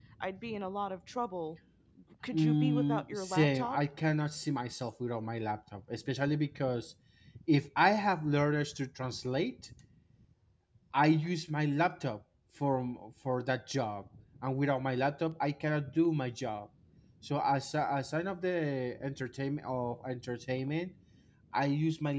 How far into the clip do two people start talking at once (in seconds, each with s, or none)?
2.3 s